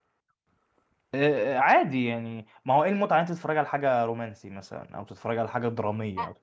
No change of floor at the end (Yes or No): No